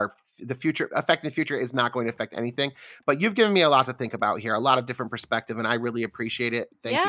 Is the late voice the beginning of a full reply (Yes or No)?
Yes